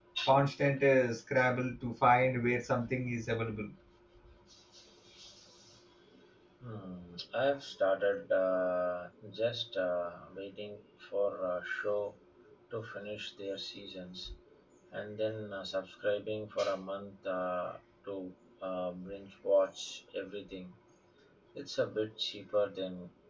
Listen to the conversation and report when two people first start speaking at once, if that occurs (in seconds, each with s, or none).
none